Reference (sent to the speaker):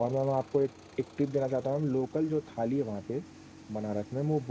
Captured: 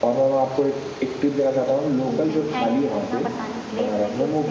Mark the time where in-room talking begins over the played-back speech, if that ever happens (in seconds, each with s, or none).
2.0 s